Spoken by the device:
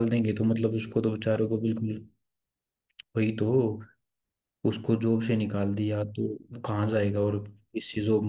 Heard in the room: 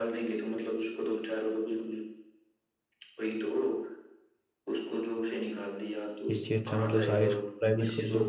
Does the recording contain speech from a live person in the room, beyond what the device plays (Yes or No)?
Yes